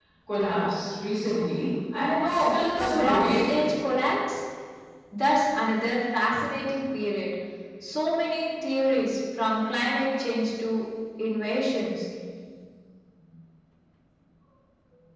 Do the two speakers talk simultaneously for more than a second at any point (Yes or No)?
Yes